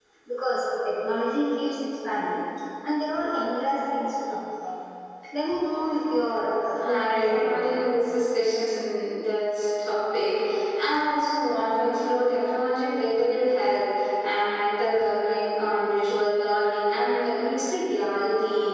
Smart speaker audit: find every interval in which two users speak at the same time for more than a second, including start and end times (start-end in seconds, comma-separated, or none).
6.8-8.0